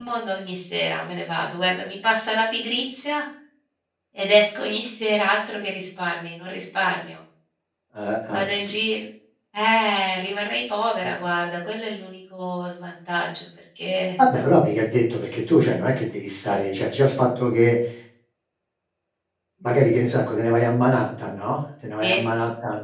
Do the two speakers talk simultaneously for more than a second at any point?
No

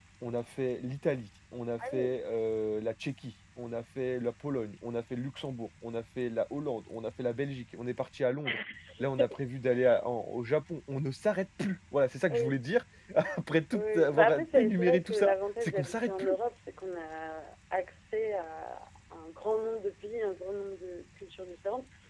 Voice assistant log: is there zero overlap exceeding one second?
No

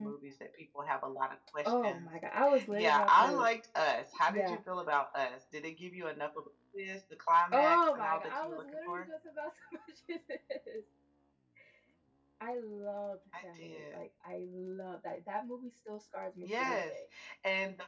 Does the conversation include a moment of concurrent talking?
Yes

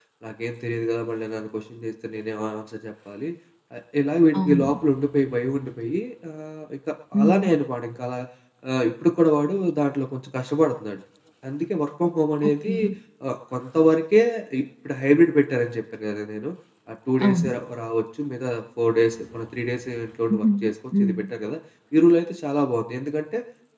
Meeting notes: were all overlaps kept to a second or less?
Yes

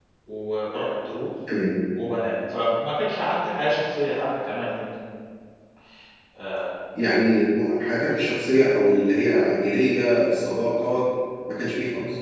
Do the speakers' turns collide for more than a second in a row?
No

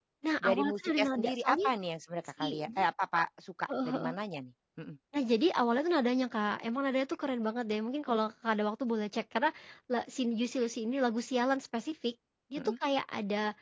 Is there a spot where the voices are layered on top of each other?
Yes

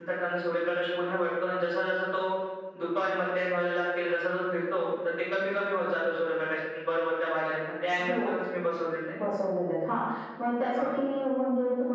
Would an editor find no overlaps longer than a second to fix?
Yes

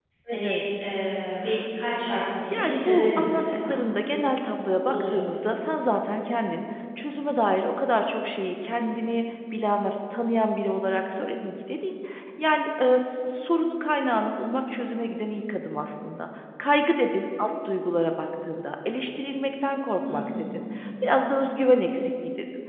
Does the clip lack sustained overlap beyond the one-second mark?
No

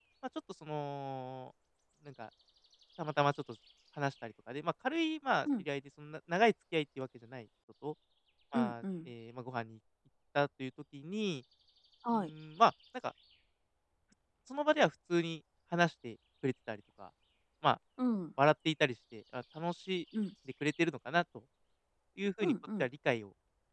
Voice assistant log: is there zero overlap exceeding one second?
Yes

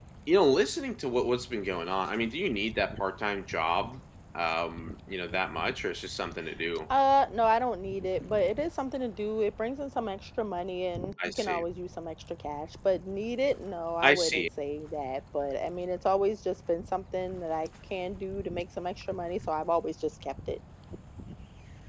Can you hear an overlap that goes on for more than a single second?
No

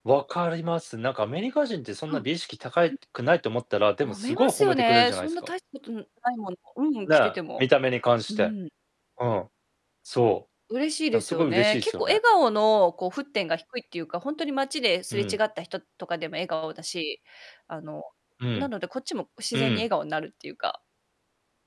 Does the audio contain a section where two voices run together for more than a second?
Yes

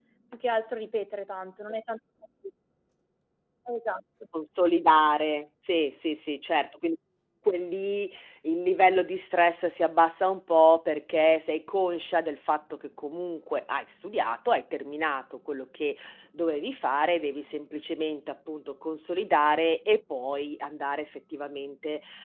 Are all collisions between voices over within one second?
Yes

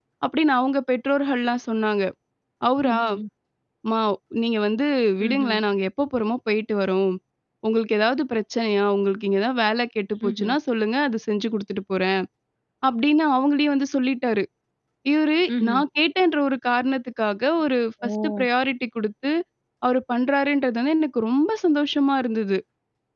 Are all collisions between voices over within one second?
Yes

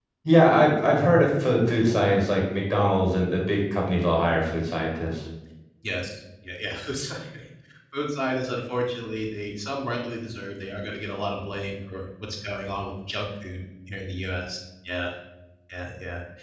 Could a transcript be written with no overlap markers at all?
Yes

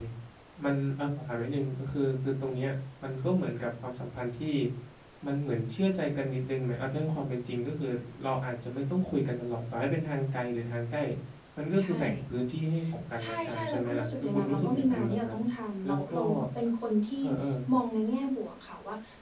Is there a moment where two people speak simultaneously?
Yes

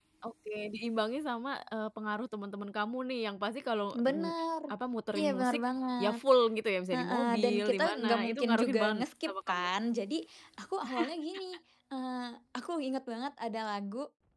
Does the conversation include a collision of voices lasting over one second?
Yes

